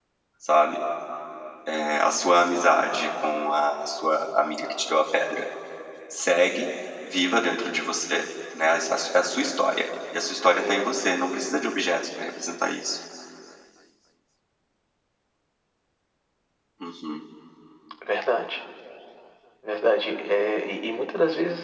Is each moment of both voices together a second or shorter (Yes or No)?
Yes